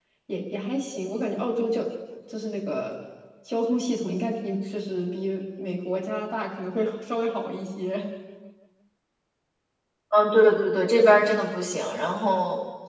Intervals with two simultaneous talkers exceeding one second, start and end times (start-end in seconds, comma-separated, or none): none